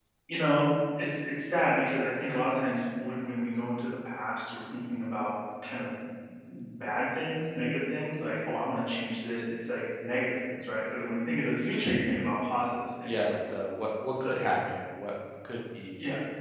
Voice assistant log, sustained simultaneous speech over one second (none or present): none